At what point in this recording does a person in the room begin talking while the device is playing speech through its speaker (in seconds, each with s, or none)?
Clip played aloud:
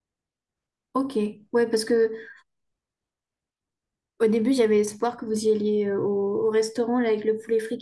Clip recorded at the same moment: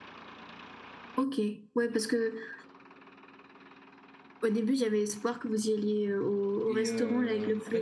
6.7 s